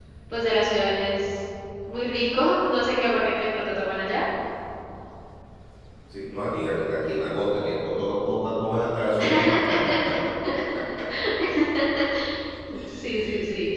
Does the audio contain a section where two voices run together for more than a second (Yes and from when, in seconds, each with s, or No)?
No